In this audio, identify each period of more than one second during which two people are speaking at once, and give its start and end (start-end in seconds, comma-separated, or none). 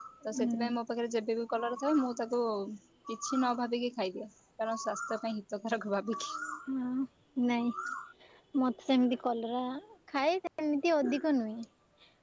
none